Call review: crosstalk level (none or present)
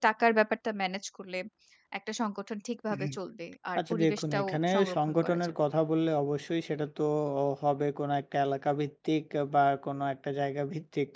present